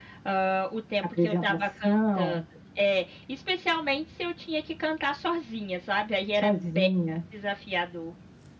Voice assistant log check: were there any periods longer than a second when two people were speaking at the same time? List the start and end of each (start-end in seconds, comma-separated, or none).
1.2-2.4